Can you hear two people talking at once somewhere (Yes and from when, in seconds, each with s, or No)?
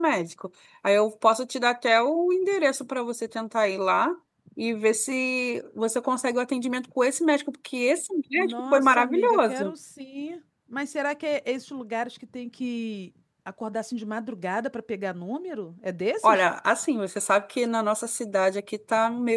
Yes, from 8.4 s